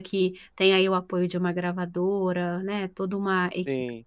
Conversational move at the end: listening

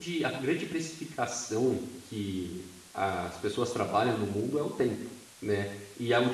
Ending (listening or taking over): listening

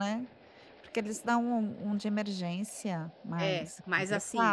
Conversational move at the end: taking over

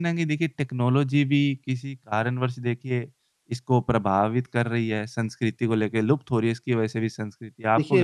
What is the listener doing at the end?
taking over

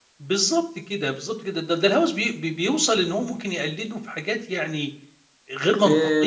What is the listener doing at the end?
taking over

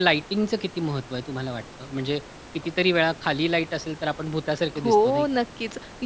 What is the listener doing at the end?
taking over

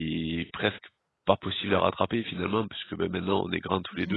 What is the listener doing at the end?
listening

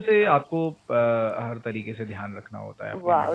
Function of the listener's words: taking over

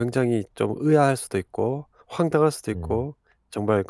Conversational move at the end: listening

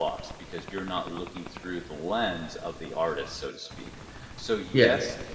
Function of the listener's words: listening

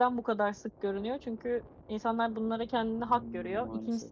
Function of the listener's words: listening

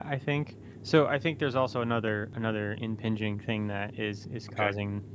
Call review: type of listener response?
listening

